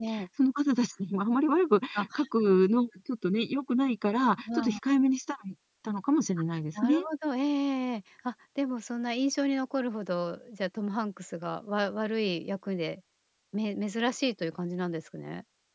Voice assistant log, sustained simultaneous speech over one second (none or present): none